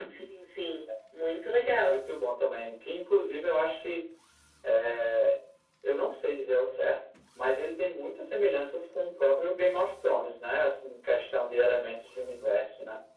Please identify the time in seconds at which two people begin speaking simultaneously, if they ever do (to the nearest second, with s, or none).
none